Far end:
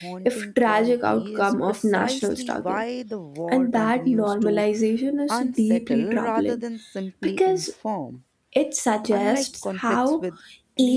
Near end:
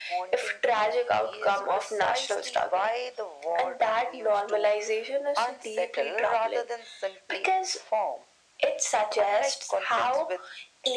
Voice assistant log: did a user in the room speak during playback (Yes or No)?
No